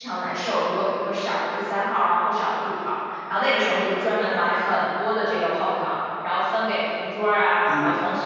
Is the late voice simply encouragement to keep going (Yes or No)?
Yes